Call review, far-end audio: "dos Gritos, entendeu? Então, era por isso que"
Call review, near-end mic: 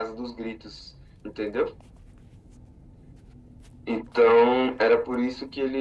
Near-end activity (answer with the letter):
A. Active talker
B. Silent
B